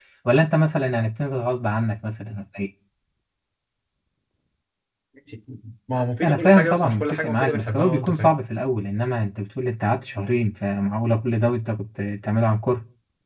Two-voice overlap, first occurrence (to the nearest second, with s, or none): 6 s